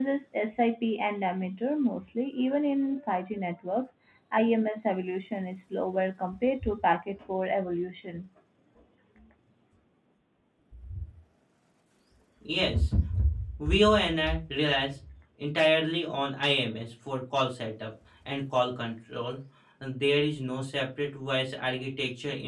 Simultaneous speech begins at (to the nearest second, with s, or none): none